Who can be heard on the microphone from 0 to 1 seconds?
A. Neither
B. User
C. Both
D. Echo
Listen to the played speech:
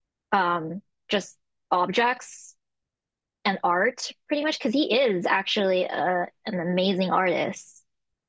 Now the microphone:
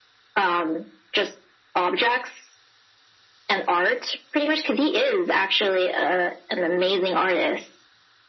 D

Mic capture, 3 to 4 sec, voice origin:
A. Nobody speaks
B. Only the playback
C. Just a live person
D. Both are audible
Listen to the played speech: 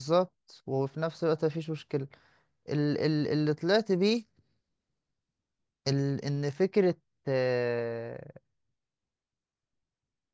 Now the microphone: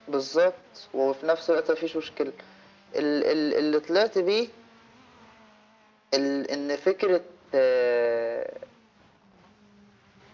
B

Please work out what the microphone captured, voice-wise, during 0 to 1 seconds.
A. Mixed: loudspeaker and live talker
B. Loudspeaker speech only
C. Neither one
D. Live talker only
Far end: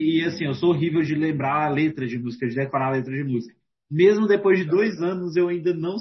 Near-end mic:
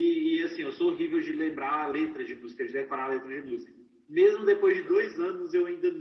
B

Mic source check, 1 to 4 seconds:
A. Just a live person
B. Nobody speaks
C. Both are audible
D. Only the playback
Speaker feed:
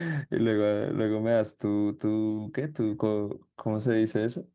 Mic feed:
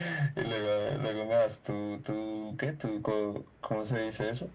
D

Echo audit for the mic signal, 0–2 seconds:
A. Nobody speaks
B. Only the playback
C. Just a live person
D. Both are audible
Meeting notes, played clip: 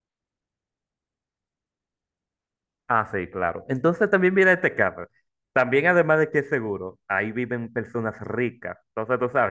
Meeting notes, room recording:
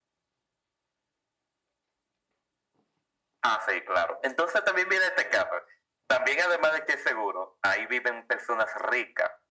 A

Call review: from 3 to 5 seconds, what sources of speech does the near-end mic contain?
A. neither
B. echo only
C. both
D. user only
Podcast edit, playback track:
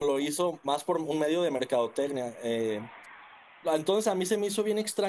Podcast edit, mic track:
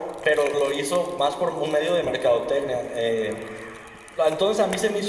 B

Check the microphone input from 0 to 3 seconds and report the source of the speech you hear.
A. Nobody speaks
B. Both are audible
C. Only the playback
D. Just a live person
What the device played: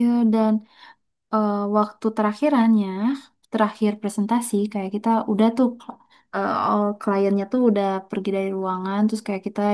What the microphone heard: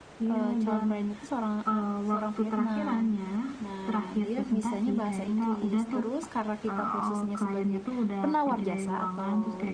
B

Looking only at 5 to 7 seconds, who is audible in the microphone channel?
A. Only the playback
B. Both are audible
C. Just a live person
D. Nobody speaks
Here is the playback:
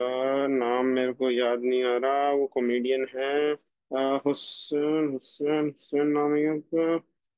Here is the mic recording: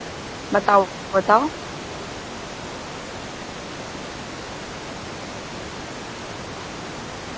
D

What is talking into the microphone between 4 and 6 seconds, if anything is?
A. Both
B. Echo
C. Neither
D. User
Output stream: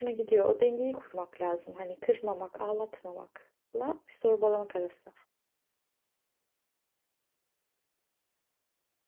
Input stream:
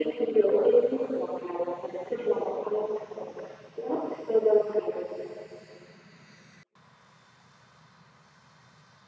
B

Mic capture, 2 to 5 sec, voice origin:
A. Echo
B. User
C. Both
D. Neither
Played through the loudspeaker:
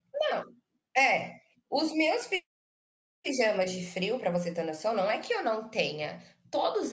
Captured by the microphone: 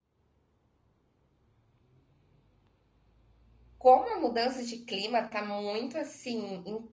B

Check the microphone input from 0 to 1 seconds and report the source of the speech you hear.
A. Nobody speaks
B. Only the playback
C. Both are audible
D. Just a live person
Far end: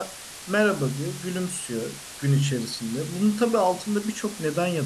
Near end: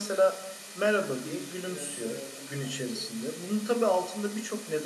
B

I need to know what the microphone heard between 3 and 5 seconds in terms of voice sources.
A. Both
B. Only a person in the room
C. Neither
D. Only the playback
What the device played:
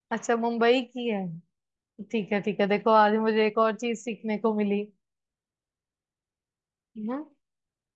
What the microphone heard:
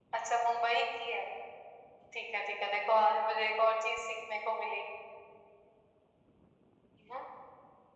D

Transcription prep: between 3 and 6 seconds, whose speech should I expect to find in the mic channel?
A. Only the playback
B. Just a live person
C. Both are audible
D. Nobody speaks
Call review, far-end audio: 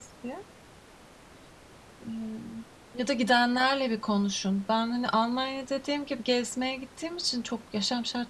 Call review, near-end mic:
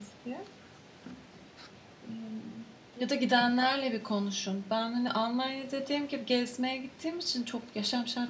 A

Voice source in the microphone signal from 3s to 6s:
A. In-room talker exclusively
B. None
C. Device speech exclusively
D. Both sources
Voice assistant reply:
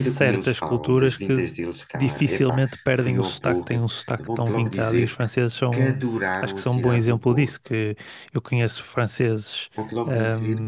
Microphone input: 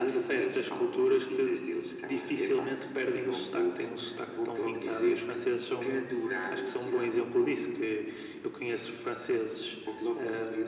C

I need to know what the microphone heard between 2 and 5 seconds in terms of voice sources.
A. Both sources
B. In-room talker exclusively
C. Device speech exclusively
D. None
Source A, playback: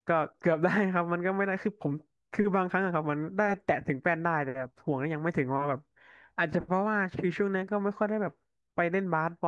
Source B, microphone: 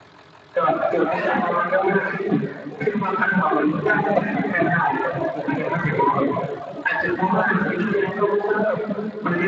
C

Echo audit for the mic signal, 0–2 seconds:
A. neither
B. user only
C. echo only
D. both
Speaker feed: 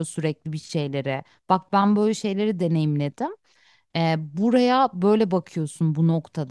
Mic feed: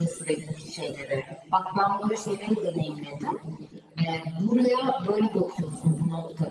C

